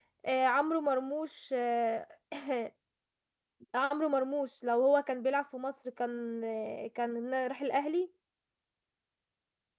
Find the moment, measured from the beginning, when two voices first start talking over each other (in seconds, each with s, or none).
none